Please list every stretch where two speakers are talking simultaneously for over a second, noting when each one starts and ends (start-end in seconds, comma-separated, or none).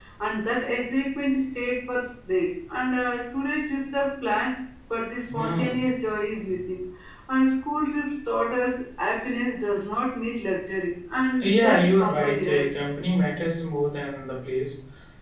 11.4-12.7